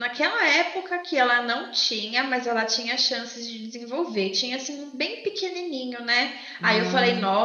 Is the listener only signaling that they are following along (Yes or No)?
Yes